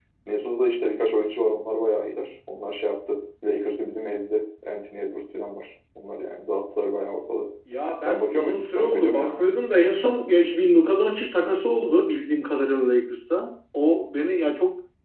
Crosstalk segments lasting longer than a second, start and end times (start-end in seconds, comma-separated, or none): 8.0-9.4